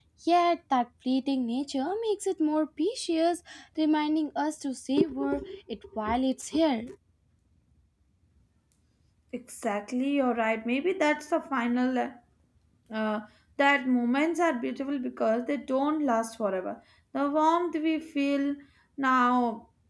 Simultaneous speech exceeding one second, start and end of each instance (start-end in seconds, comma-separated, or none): none